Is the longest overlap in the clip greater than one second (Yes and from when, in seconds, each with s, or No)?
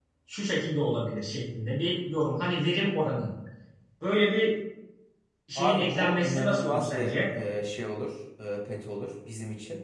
Yes, from 5.6 s